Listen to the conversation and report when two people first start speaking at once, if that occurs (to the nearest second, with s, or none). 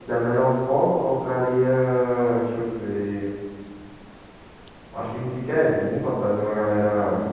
none